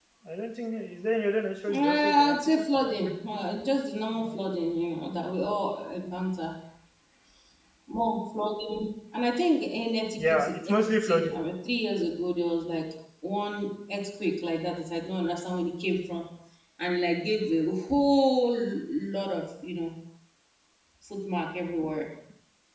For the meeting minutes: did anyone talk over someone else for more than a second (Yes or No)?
Yes